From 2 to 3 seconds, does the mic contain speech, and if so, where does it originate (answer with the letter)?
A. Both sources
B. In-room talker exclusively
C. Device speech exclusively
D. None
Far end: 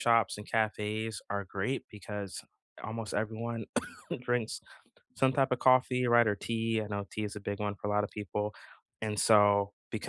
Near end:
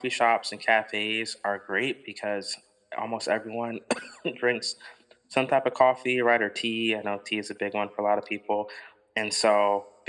C